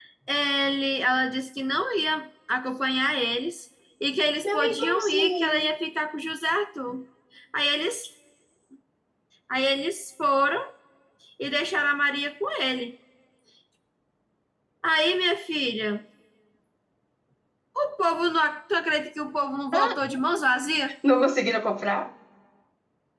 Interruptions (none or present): present